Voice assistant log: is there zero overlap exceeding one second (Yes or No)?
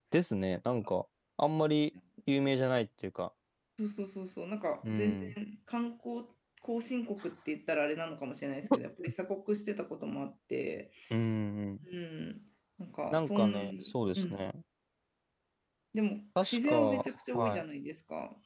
No